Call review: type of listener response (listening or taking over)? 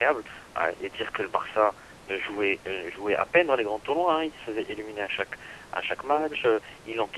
listening